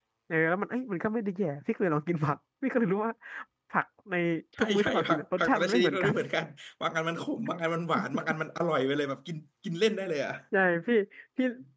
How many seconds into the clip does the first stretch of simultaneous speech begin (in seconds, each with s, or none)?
4.6 s